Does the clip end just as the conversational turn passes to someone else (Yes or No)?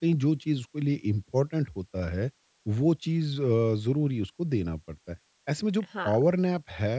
No